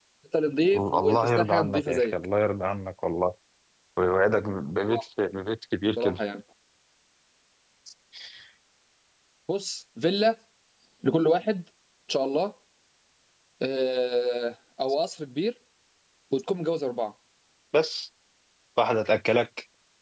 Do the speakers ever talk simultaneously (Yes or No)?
Yes